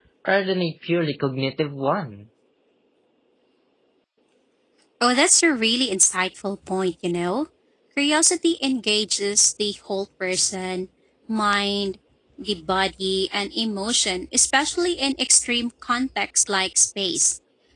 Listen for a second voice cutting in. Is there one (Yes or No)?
No